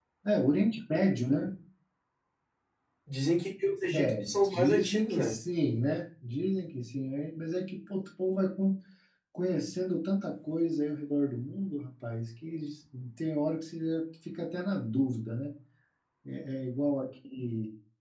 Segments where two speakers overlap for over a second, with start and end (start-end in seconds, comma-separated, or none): 3.9-5.3